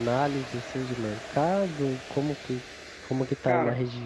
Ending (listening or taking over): listening